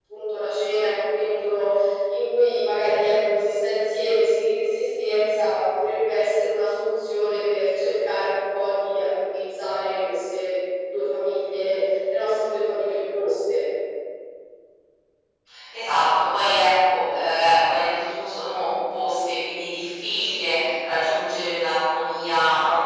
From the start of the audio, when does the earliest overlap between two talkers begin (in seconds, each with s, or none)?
none